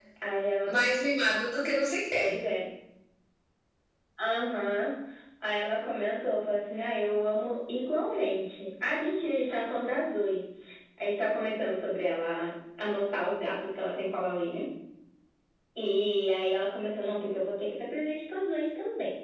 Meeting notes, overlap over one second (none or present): none